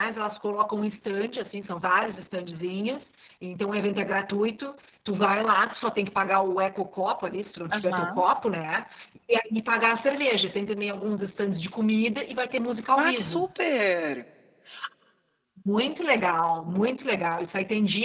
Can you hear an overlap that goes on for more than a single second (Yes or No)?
No